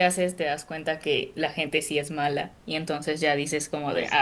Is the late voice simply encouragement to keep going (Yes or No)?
No